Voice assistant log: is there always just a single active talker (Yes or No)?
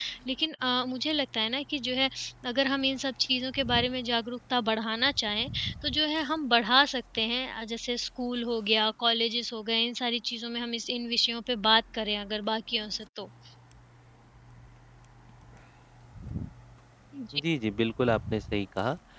Yes